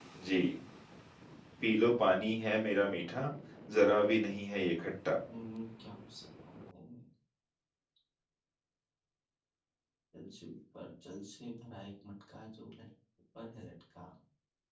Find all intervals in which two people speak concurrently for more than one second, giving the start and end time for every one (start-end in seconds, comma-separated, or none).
none